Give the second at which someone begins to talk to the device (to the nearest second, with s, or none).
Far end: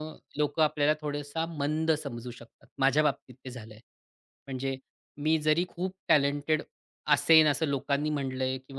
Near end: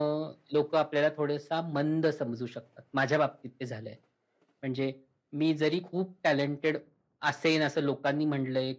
none